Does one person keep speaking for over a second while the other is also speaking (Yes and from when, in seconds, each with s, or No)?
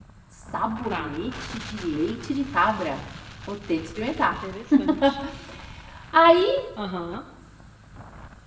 No